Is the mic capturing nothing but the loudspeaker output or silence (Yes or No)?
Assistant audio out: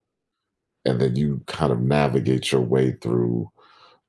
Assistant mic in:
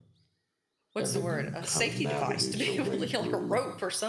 No